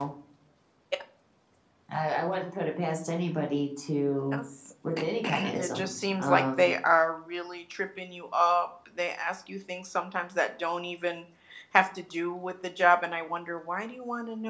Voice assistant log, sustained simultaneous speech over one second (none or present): present